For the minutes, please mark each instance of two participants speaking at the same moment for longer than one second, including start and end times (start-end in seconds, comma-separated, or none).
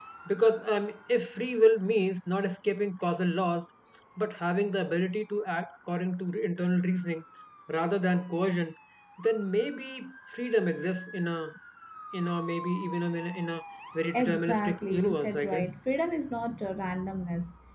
14.2-15.7